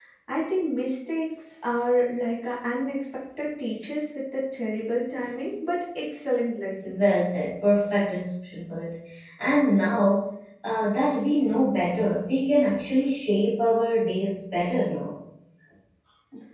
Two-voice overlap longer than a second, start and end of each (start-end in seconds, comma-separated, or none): none